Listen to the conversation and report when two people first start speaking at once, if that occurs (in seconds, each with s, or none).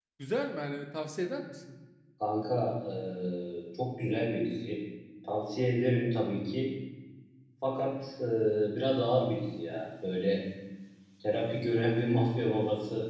none